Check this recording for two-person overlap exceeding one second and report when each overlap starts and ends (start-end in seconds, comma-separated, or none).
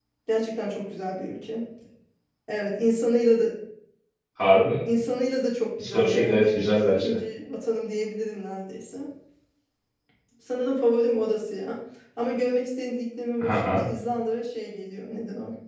5.8-7.2